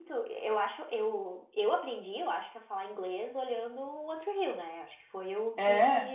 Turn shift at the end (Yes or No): No